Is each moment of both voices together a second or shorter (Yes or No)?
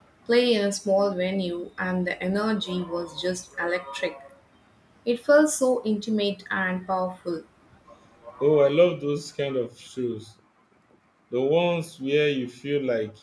Yes